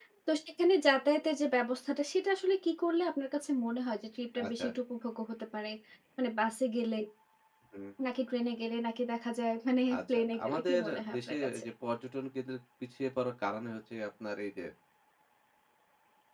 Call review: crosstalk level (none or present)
present